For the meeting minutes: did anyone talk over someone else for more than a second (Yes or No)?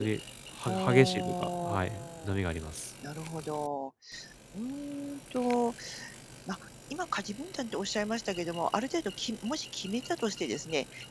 Yes